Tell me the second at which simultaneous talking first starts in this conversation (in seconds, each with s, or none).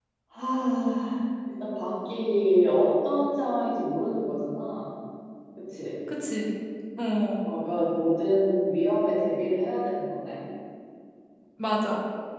none